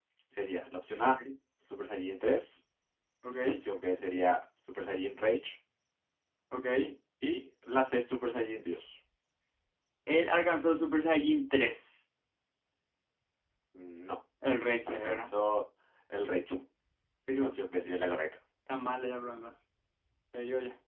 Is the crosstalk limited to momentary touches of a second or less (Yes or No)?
Yes